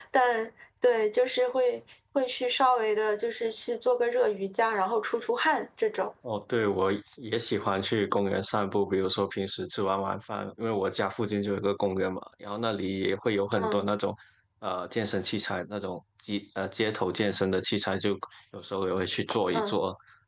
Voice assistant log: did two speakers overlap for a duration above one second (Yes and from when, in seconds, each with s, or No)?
No